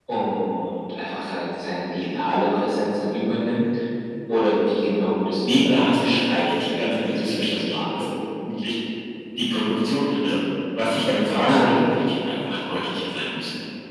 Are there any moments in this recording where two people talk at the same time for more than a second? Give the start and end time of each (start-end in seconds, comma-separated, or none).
5.4-8.0